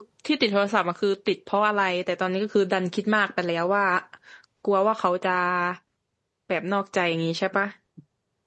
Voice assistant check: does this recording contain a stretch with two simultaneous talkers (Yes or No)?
No